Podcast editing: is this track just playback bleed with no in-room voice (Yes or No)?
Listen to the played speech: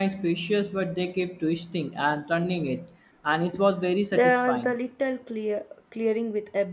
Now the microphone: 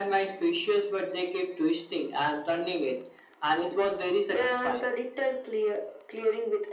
Yes